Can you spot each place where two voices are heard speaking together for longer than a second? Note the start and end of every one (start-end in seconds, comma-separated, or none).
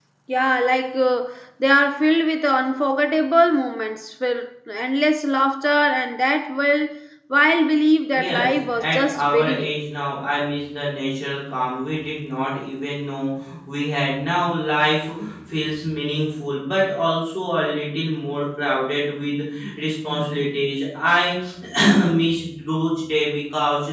8.2-9.7